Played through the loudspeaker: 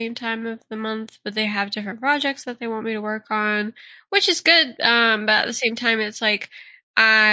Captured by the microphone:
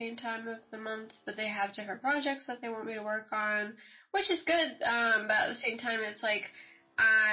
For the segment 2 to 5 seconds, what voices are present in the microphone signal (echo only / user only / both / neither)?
echo only